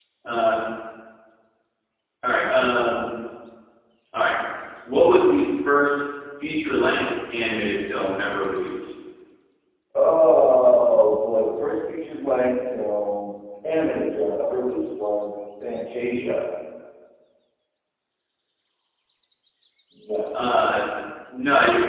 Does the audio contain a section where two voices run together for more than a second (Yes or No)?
No